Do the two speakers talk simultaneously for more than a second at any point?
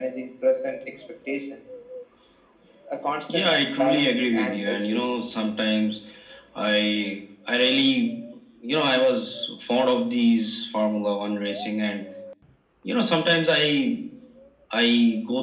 Yes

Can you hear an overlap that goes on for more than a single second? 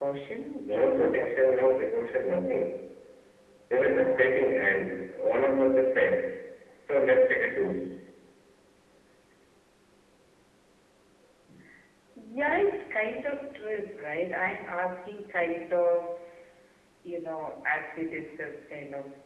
Yes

